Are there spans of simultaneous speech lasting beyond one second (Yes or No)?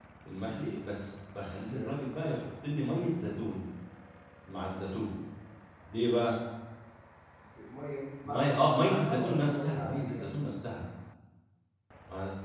Yes